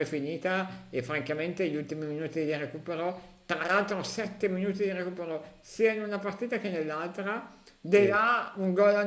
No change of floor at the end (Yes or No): Yes